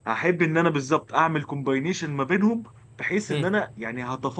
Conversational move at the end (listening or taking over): listening